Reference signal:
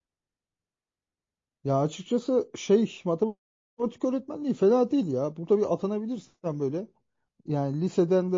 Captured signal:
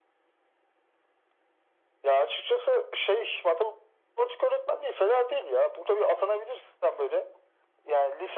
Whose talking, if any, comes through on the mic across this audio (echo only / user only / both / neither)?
echo only